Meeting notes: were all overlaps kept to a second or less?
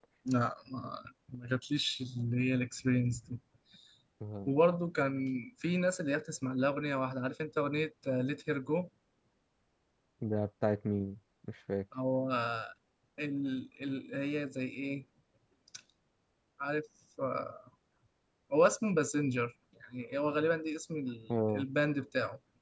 Yes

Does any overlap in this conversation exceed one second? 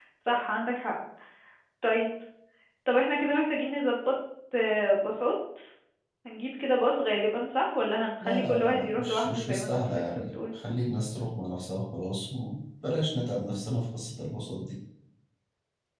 Yes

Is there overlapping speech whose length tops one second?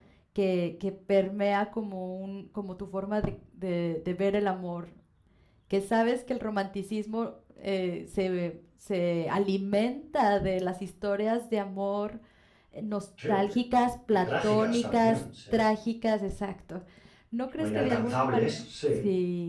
Yes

